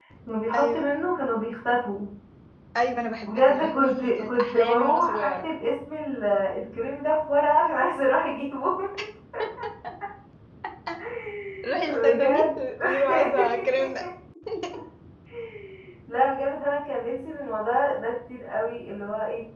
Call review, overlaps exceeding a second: present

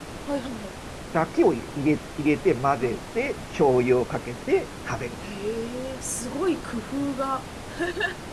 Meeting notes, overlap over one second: none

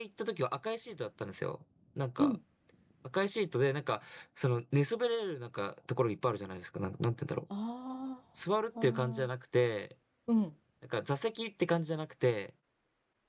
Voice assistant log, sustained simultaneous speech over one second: none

